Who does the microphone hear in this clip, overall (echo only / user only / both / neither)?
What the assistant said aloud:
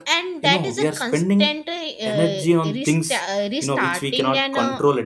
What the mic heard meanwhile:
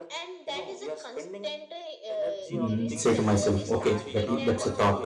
both